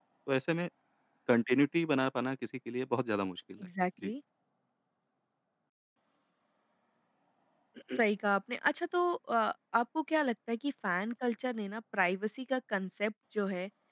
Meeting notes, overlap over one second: none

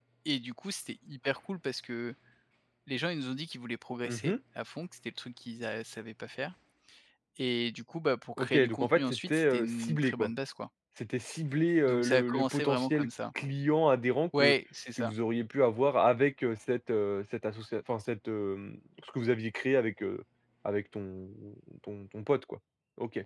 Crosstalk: present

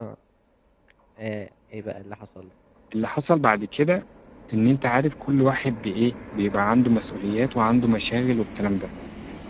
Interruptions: none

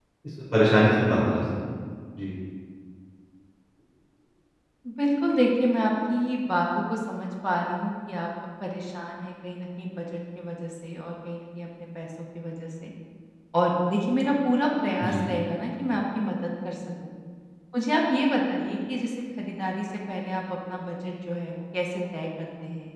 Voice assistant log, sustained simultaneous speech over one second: none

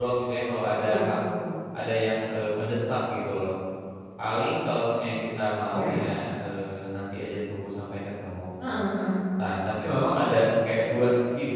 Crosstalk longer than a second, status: none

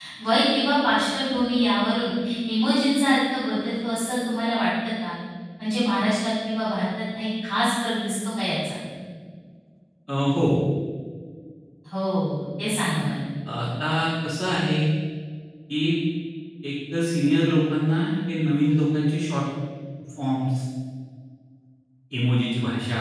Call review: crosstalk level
none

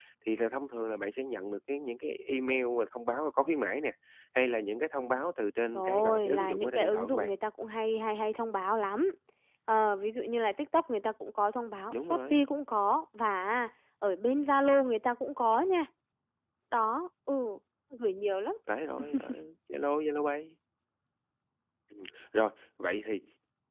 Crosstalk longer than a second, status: present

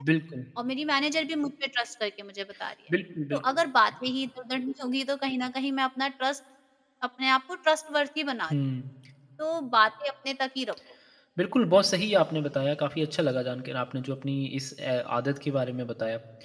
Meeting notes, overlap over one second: none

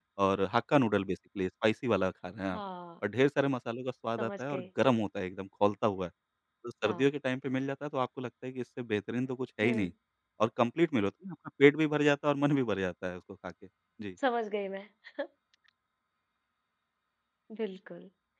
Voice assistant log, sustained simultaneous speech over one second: none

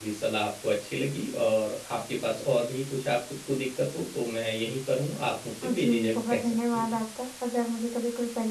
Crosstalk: present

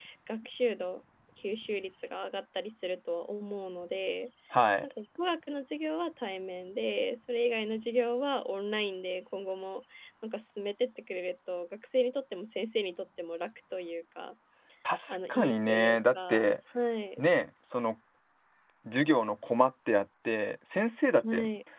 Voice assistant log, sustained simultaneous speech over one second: present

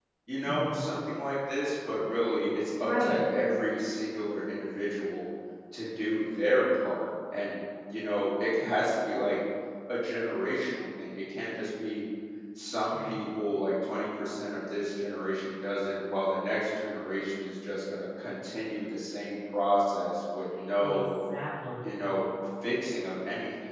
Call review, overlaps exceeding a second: none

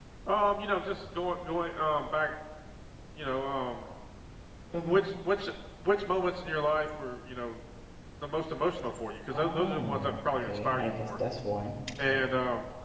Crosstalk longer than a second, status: present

